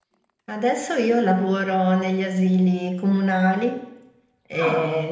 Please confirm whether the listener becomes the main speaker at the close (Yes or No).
No